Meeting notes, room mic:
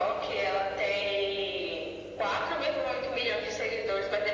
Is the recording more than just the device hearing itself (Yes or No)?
No